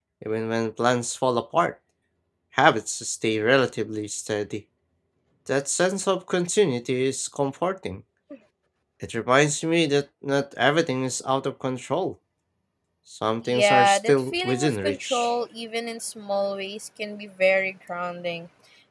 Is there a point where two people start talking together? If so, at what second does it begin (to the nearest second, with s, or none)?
13 s